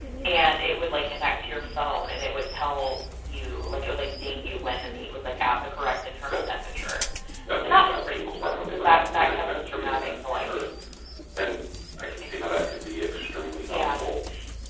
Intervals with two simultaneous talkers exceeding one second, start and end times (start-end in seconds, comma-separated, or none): 7.6-10.4